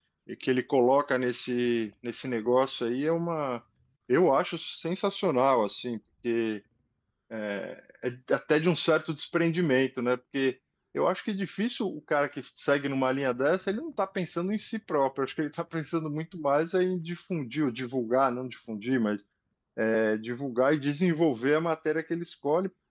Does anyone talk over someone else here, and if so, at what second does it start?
none

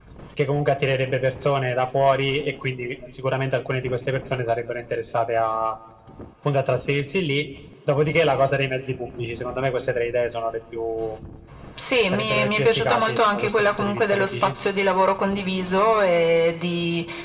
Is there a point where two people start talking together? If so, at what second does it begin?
12.1 s

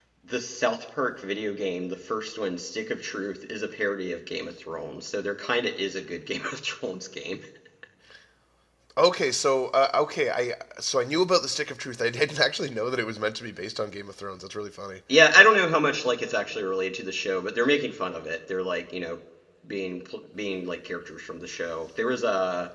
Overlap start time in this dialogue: none

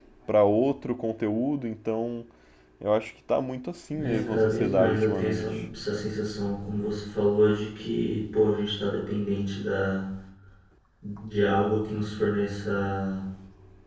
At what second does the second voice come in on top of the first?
3.9 s

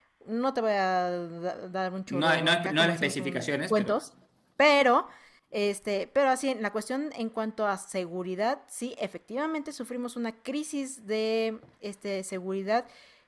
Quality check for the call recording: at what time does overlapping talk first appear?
2.1 s

